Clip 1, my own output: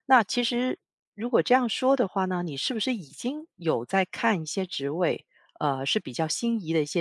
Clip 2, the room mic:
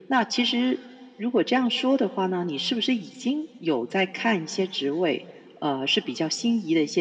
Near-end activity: none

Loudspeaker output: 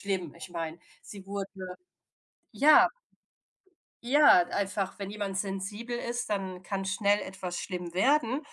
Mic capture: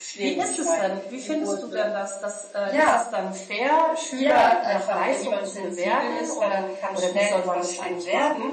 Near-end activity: present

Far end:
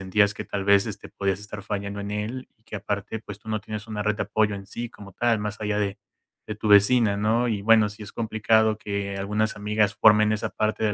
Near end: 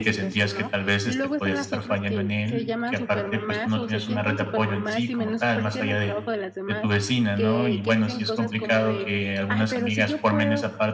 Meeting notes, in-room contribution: present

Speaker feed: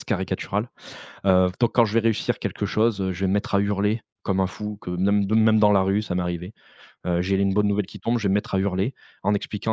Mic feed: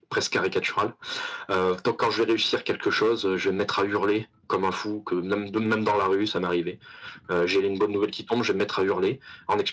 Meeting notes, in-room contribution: none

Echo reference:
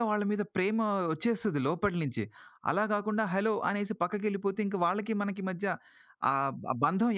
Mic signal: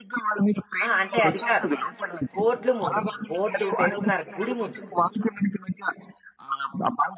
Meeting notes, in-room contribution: present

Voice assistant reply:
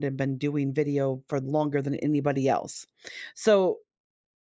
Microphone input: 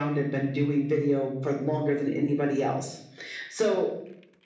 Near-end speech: none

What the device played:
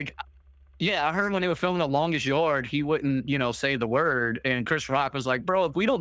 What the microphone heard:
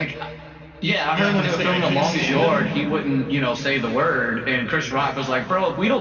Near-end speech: present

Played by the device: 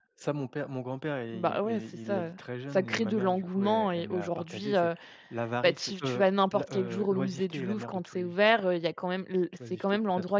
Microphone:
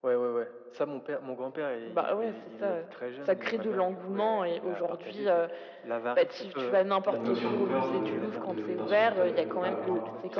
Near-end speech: present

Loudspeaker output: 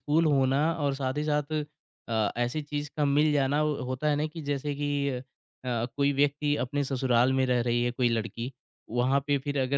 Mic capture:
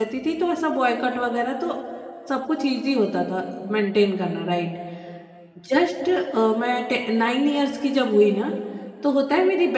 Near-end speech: present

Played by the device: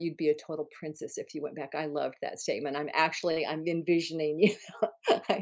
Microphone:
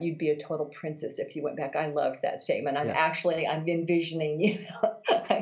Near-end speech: present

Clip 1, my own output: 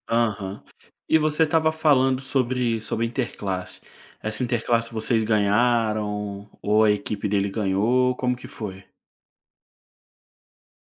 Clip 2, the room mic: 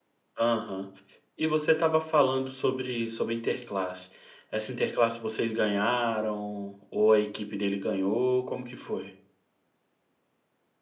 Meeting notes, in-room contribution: none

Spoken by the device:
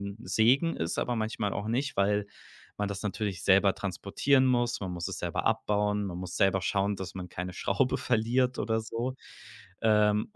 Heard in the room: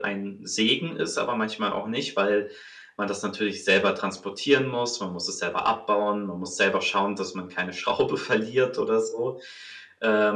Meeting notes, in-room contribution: none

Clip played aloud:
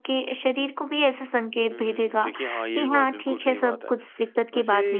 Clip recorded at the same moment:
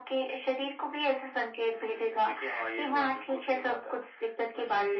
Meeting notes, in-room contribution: none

